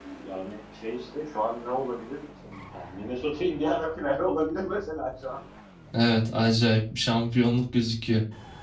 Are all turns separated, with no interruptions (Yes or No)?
Yes